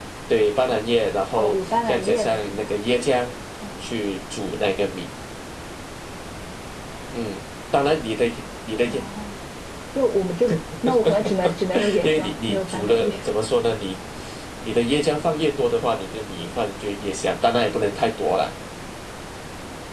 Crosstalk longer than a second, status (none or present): present